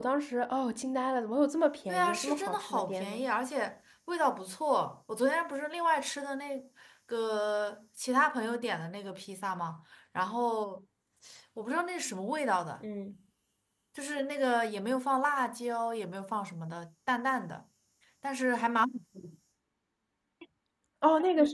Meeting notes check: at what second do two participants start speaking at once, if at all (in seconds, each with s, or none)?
1.9 s